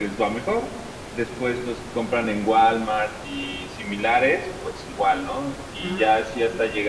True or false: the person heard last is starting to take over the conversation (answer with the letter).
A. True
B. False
B